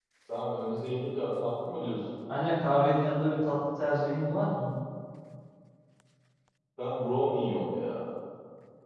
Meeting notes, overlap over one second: none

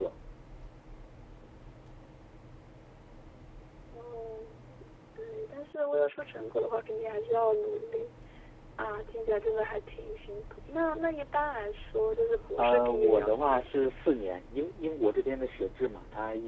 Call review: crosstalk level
present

